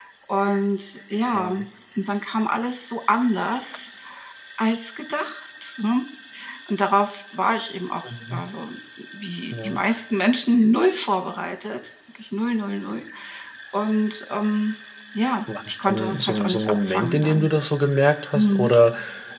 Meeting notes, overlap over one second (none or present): present